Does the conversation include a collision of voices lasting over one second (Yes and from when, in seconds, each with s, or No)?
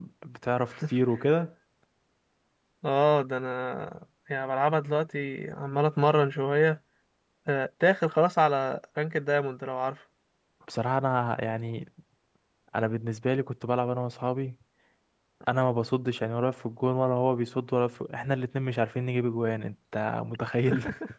No